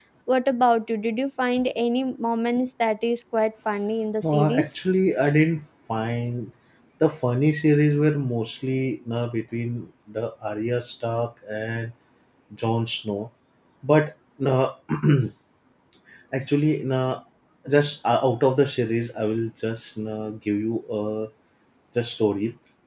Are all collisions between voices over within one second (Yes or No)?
Yes